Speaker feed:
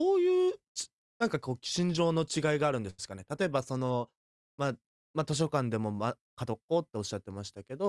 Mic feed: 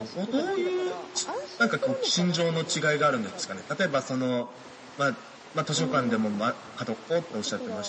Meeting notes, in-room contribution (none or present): present